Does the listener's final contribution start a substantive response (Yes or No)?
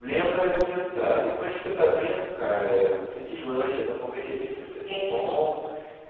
No